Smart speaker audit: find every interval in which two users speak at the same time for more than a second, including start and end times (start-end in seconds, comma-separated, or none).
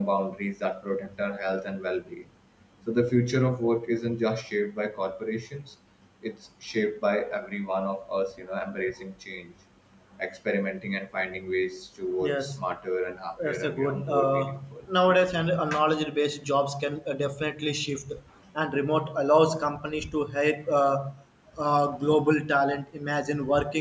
13.4-14.8